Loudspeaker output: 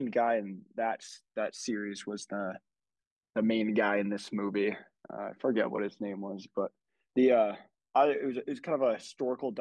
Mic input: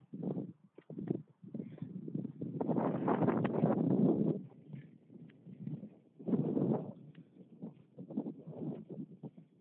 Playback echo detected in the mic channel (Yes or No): No